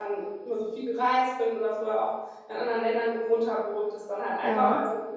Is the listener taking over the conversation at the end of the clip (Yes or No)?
No